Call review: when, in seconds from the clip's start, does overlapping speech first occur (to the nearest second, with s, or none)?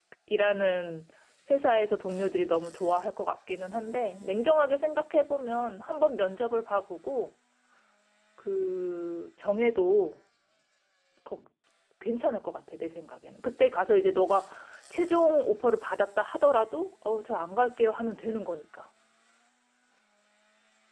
none